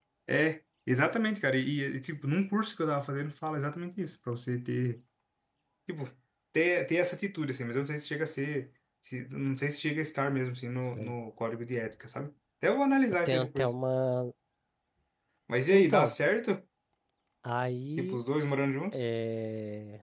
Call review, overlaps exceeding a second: none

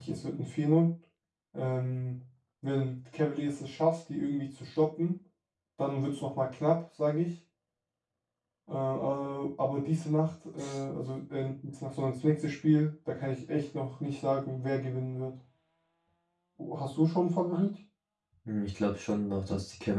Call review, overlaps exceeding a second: none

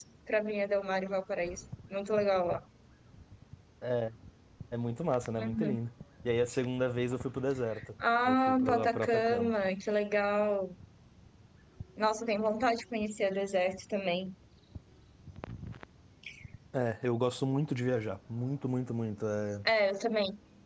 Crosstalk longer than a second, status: present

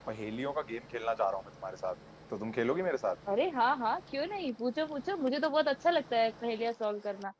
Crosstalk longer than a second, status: none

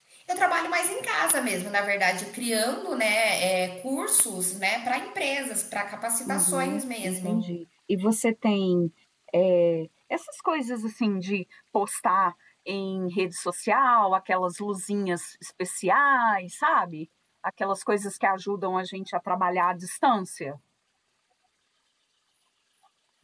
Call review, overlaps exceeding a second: present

